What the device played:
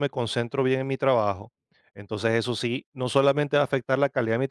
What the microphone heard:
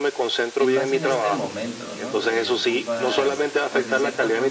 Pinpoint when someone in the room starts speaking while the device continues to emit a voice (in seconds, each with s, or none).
0.6 s